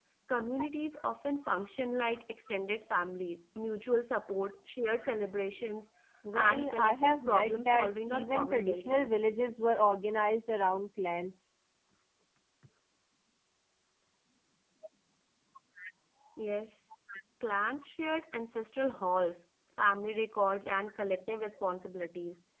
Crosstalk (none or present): present